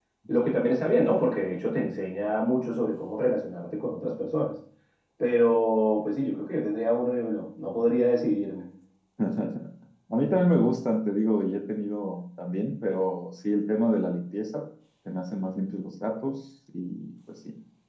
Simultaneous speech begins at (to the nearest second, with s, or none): none